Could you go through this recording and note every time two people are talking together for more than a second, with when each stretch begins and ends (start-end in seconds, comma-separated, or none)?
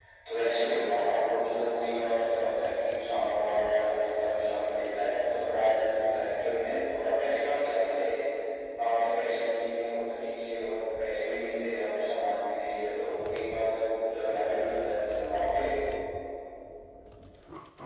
none